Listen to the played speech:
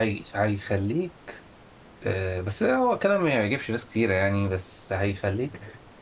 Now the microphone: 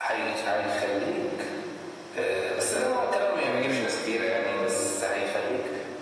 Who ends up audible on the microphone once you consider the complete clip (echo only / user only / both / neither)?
both